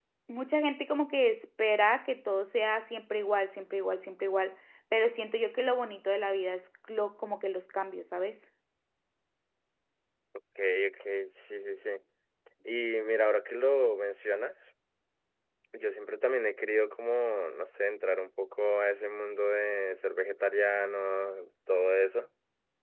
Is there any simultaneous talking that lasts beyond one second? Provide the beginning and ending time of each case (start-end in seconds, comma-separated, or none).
none